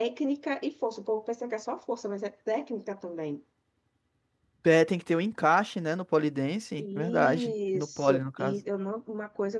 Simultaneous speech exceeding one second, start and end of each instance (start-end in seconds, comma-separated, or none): 6.8-8.6